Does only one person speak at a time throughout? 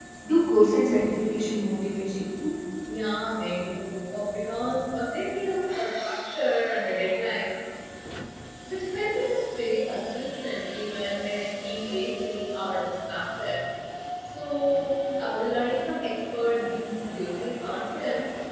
Yes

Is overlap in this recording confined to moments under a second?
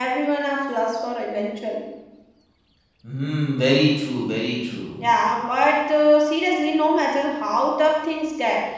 Yes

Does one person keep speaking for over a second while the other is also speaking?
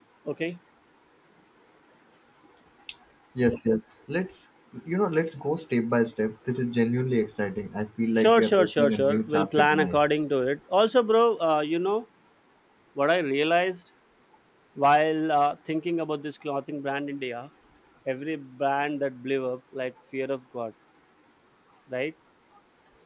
Yes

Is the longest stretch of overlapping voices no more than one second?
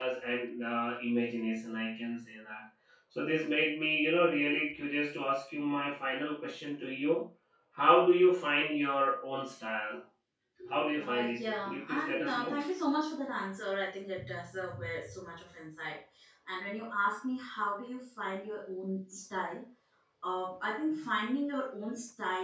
No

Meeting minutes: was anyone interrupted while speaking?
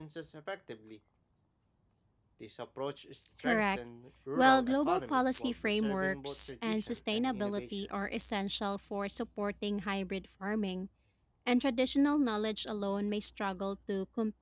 Yes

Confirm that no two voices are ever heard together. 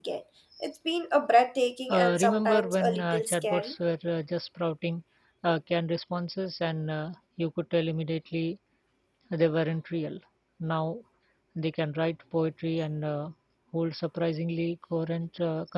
No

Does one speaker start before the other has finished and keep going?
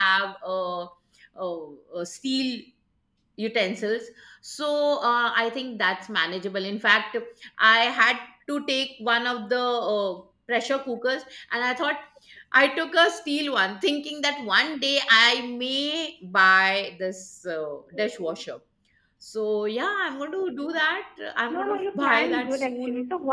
Yes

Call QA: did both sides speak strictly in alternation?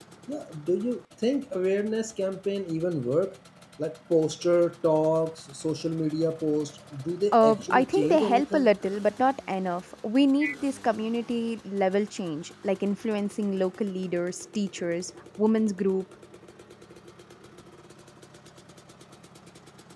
No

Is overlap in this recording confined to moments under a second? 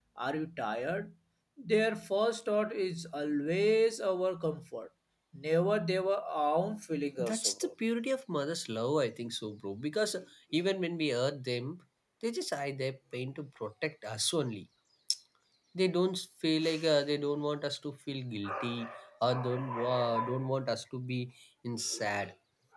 Yes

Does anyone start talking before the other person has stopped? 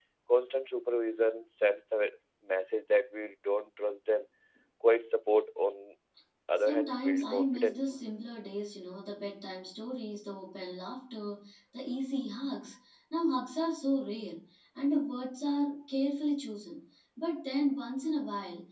Yes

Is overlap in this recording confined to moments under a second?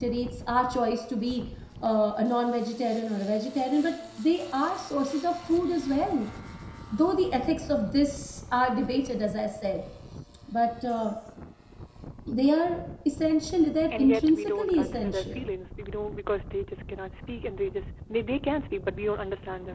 No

